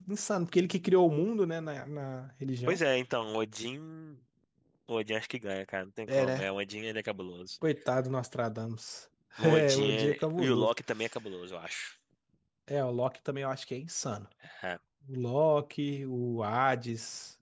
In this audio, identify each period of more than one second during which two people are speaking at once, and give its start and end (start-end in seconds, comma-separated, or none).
9.4-10.7